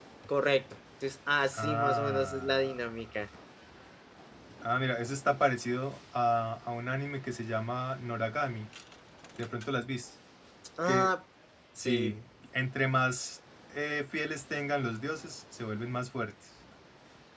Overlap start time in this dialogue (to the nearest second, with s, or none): 2 s